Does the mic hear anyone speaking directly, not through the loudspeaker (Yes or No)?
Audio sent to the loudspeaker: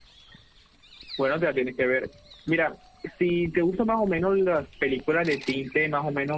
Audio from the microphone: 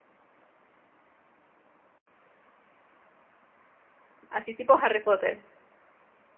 Yes